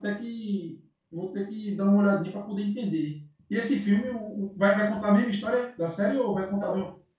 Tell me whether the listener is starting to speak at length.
Yes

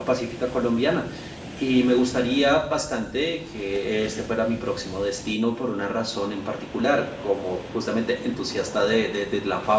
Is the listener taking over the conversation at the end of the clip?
No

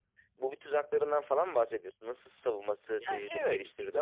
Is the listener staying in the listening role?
No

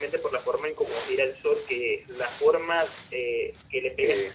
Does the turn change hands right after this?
No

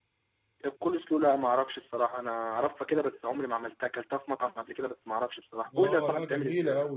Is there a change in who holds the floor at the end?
Yes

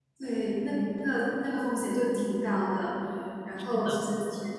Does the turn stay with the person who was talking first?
Yes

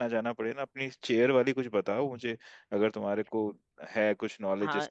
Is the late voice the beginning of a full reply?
Yes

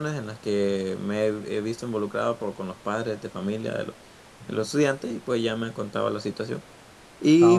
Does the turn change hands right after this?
No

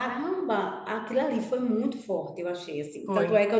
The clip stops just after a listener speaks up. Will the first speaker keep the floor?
Yes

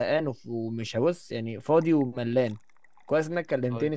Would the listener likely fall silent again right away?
Yes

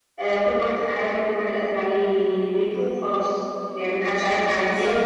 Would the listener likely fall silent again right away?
Yes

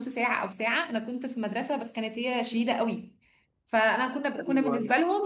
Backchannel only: Yes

